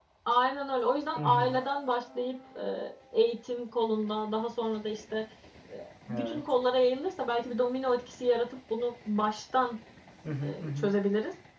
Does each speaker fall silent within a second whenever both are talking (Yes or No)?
Yes